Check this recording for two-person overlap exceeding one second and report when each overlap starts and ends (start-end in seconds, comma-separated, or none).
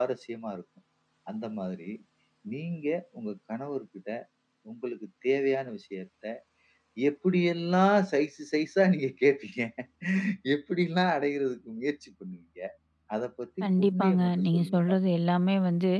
13.6-15.0